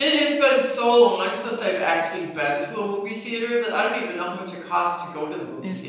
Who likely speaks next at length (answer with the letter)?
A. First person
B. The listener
B